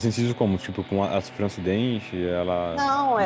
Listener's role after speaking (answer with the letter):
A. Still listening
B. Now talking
B